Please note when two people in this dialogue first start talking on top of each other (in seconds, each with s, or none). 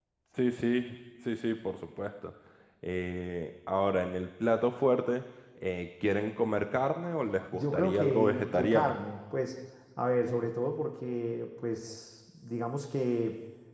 7.5 s